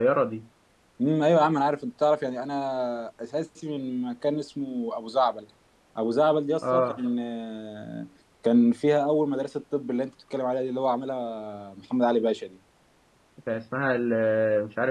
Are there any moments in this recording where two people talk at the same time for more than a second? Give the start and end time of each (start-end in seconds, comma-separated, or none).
none